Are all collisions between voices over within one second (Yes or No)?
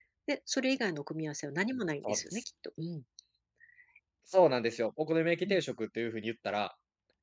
Yes